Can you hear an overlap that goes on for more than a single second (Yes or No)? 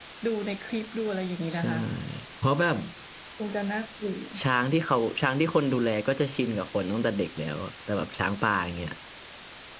No